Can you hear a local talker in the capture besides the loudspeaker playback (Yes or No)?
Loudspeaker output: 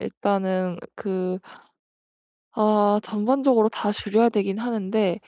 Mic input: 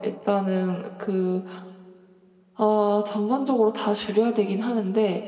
No